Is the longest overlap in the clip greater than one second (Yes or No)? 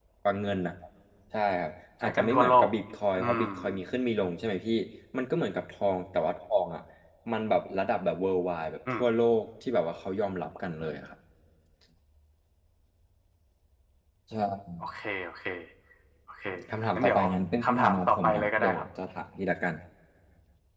Yes